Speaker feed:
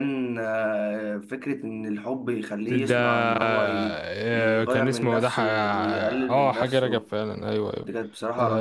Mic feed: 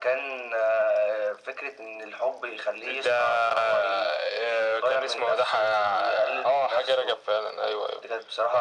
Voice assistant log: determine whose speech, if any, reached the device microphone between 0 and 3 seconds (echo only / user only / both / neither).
echo only